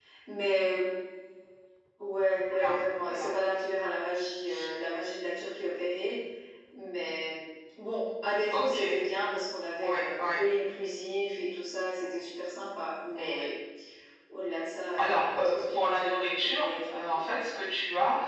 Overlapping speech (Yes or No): Yes